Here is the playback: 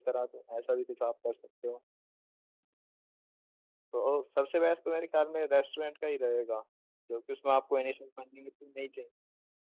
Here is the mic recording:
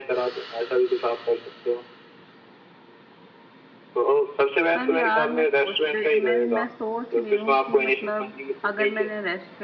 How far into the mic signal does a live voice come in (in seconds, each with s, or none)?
4.7 s